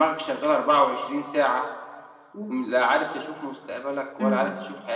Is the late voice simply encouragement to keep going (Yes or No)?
No